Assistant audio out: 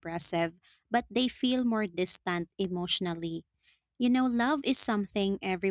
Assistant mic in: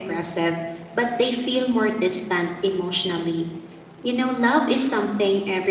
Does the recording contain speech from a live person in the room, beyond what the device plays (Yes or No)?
No